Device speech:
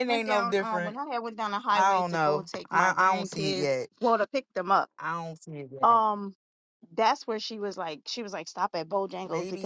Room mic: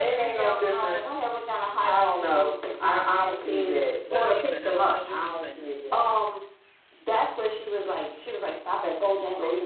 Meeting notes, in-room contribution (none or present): present